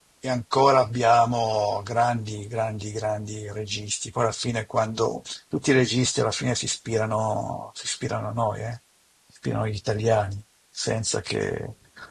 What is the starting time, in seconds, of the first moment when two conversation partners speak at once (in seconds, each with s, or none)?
none